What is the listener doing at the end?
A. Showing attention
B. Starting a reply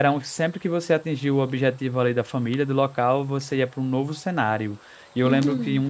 A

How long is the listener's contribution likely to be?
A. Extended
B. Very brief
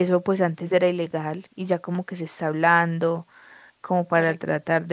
B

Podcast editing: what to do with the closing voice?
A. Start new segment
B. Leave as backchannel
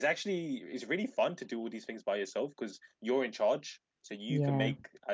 B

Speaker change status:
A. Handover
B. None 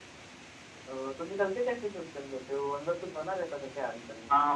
A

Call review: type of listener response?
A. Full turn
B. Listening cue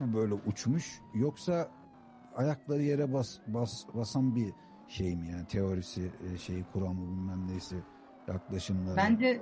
A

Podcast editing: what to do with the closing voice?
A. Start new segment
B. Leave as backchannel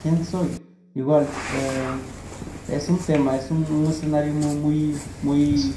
B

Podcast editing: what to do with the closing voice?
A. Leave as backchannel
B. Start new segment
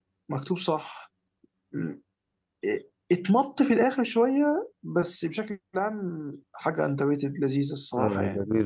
B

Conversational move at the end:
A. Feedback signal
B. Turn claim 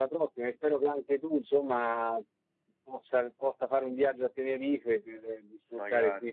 A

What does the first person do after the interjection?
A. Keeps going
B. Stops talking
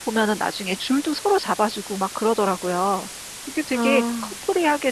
A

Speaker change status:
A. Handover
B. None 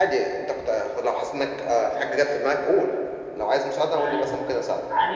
A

